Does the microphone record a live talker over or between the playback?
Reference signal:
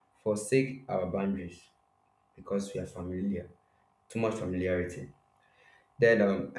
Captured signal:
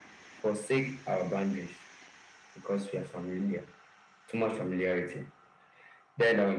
No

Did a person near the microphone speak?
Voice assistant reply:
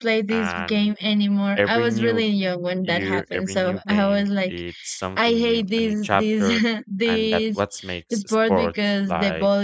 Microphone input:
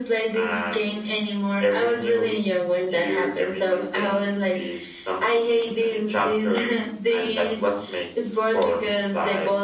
No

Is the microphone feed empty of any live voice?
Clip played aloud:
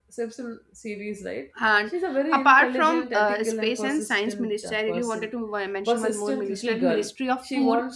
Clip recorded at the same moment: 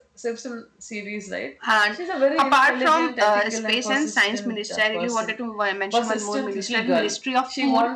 Yes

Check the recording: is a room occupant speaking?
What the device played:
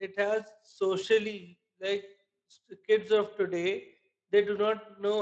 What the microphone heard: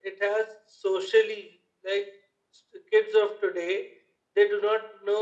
No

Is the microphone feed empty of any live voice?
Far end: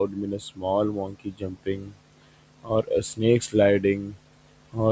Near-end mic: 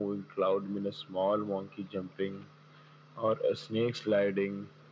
Yes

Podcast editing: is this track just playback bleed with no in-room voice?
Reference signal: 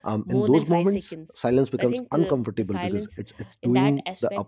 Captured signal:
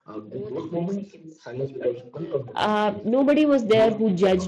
No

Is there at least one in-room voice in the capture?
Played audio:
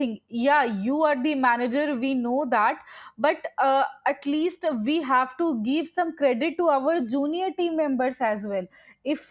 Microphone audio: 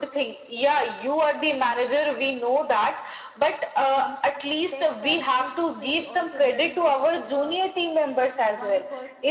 Yes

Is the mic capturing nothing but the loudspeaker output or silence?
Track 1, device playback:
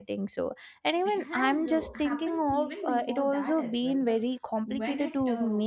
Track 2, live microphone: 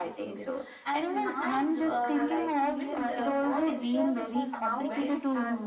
No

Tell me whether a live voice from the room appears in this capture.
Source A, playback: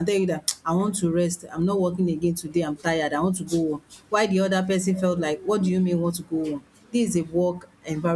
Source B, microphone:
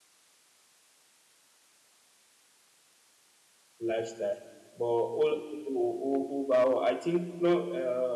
Yes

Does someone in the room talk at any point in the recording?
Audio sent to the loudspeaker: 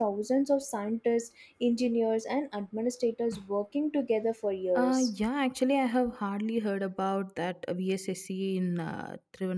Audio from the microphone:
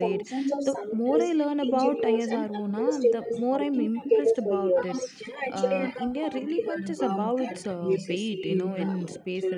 Yes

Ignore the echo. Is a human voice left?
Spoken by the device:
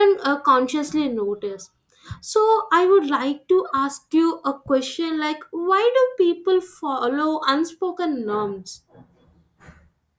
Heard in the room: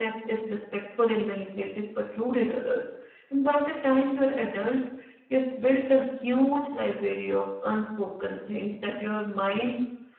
Yes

